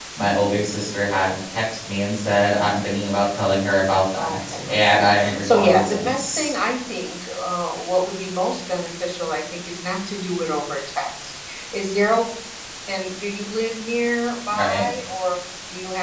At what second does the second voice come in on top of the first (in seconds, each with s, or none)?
4.2 s